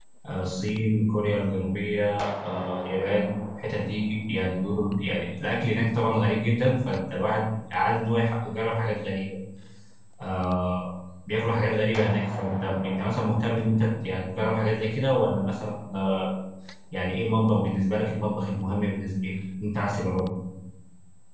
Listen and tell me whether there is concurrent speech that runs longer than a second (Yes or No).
No